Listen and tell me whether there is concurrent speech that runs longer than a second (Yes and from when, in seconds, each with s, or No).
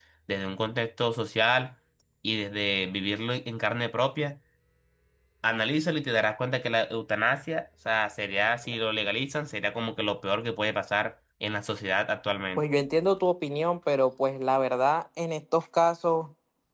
No